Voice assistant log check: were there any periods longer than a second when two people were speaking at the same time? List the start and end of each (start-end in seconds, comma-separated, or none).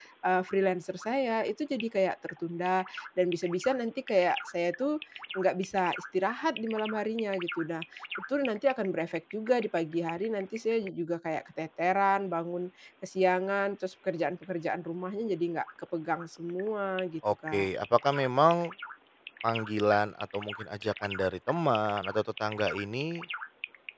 none